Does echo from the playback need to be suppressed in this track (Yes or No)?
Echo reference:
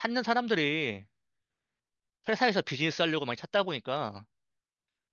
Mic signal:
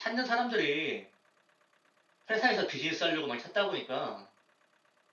Yes